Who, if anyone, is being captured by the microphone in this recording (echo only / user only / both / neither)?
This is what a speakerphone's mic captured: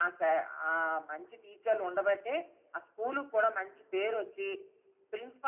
echo only